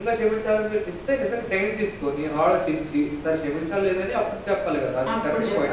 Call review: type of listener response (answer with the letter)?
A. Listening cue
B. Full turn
B